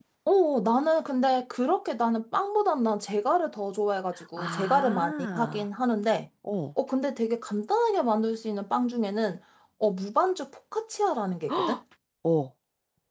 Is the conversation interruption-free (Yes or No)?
No